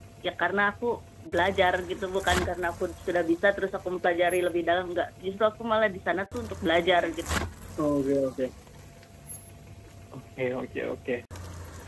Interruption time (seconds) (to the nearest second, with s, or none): none